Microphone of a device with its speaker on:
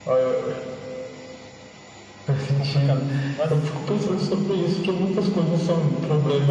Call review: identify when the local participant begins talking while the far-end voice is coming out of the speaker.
2 s

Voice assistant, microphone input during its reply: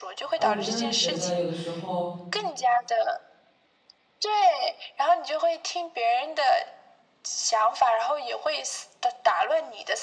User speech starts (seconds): 0 s

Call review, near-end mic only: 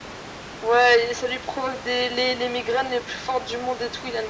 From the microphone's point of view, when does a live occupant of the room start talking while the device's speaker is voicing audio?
none

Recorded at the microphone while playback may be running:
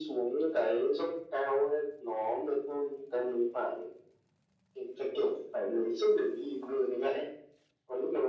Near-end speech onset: none

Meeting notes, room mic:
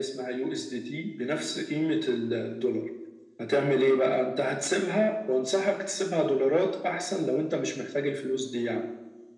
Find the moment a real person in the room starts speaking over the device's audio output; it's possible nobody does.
none

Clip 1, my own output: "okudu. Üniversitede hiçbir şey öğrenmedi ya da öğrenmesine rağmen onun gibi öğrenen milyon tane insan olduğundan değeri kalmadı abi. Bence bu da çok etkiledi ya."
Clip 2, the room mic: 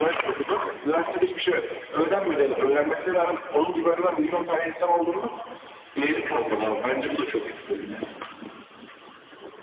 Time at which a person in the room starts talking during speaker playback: none

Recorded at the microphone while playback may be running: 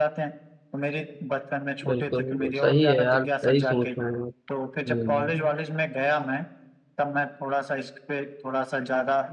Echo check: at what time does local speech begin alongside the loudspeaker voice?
2 s

